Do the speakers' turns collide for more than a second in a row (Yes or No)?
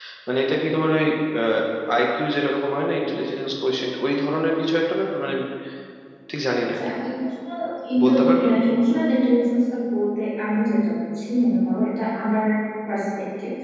No